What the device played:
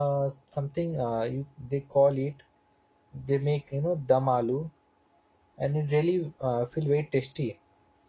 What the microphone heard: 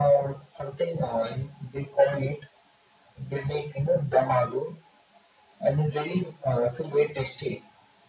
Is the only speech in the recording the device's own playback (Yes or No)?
Yes